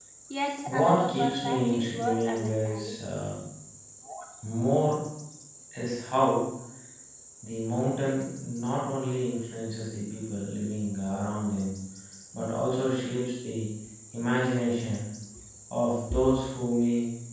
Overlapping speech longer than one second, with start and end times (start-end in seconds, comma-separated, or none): 0.7-3.0